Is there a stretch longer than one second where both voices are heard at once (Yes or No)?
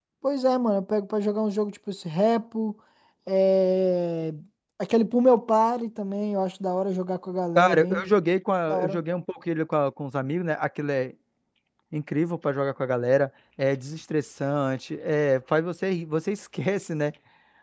No